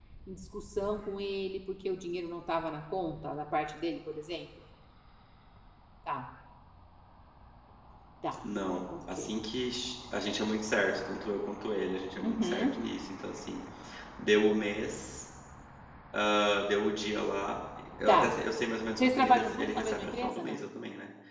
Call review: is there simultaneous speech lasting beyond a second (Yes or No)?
Yes